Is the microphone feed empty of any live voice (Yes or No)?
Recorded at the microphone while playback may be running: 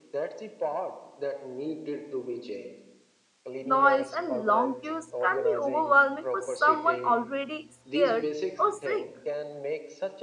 No